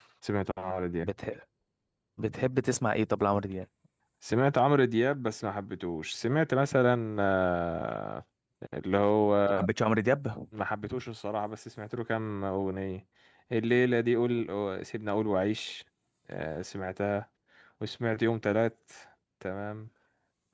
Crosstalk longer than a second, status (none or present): none